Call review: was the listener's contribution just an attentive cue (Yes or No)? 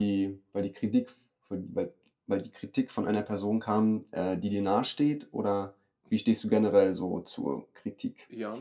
No